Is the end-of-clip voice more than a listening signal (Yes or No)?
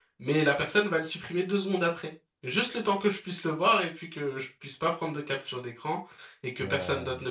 No